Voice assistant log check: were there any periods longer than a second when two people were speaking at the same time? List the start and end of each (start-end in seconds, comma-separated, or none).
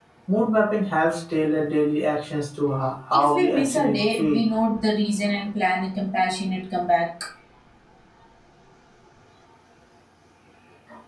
3.1-4.4